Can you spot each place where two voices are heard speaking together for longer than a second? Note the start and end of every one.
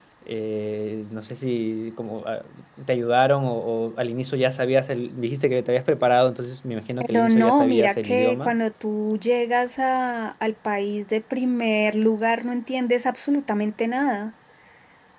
7.0-8.5

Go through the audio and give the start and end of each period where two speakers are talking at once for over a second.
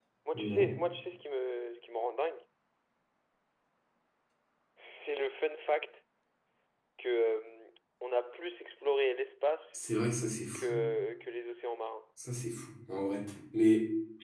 none

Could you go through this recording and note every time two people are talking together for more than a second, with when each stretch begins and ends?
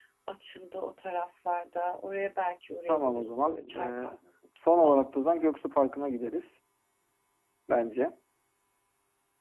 2.9-4.1

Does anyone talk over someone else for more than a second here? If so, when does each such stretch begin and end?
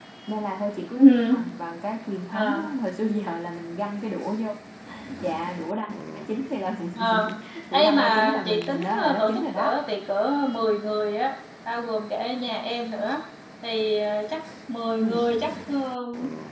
7.7-9.7

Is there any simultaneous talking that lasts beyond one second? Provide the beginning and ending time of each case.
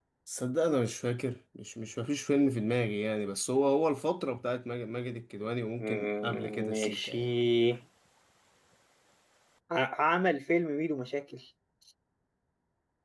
5.8-7.3

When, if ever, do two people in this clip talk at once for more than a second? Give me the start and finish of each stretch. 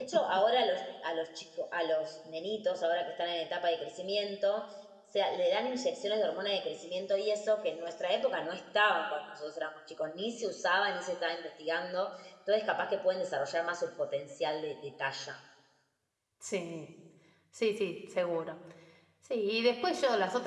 none

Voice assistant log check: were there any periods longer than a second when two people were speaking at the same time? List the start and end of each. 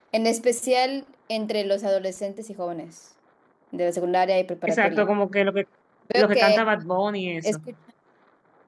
none

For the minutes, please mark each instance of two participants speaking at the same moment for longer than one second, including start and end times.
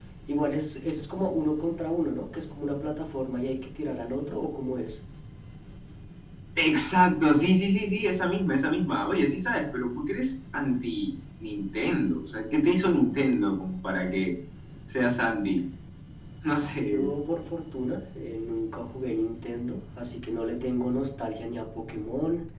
none

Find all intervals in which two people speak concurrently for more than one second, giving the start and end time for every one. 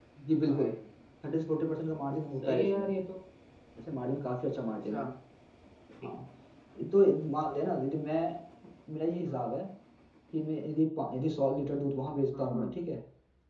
none

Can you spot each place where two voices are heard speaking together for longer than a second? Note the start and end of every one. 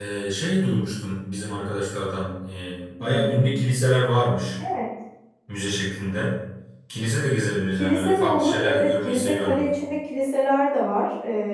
7.8-9.8

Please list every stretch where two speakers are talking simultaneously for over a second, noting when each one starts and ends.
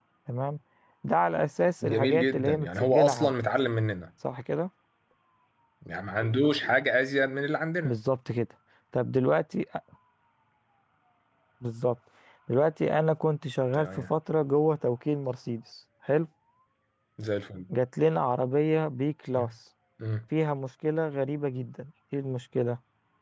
1.8-3.3

